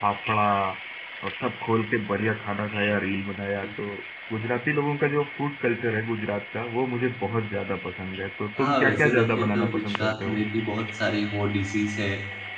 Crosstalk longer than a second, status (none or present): present